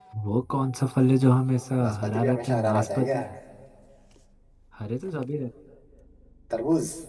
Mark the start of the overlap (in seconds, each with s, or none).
1.8 s